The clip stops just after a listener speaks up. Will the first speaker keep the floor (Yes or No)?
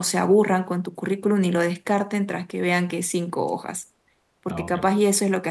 Yes